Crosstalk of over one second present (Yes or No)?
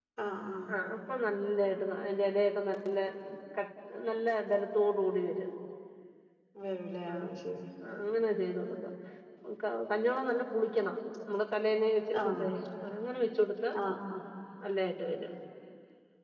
No